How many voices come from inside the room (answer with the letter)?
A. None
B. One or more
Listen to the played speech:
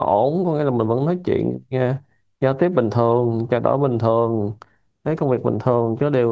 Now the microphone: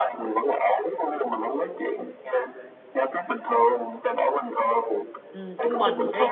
B